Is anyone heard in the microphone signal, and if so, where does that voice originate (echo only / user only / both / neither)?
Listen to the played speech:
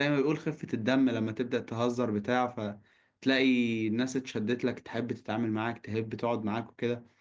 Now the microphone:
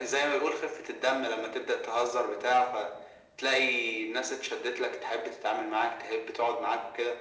echo only